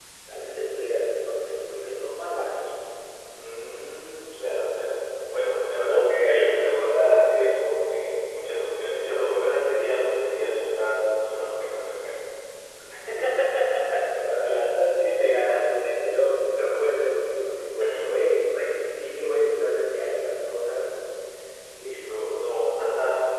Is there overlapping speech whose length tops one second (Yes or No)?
Yes